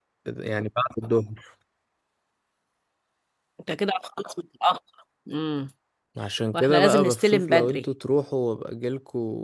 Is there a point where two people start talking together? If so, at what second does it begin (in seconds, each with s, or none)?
6.5 s